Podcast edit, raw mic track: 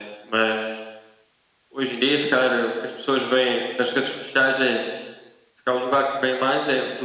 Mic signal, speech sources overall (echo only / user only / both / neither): echo only